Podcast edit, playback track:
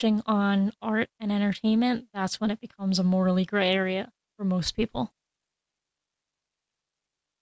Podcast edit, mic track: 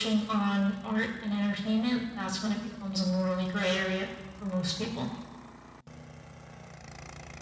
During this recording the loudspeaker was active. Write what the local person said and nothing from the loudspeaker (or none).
none